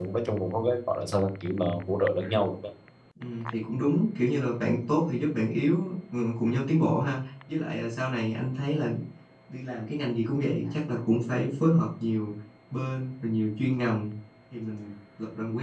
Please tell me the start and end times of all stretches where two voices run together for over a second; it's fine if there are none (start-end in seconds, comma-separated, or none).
none